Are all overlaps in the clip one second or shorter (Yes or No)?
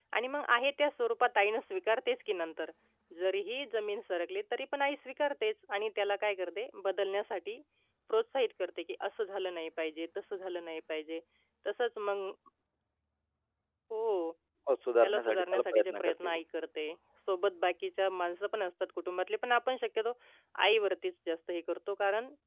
No